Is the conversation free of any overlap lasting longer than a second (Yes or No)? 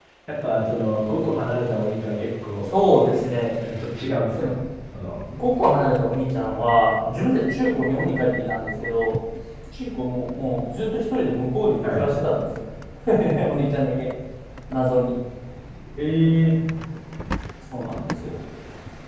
Yes